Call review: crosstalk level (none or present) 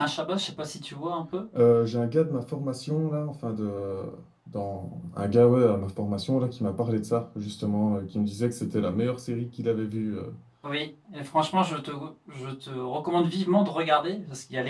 none